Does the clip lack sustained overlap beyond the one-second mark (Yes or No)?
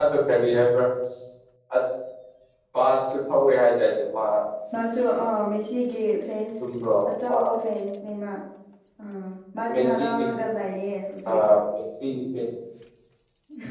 Yes